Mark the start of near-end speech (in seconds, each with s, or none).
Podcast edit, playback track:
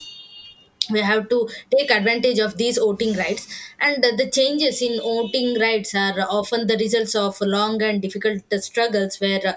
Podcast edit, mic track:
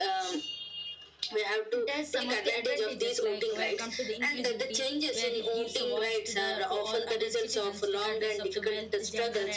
1.7 s